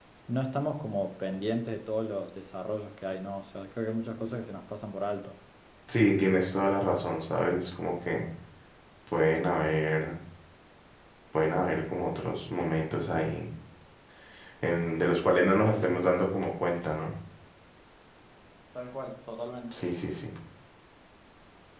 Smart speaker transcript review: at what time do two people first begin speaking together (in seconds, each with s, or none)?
none